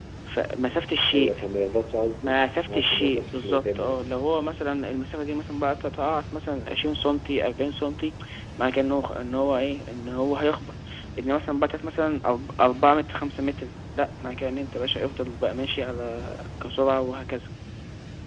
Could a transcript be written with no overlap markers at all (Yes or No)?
No